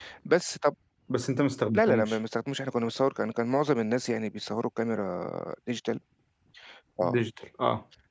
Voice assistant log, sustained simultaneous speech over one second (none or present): none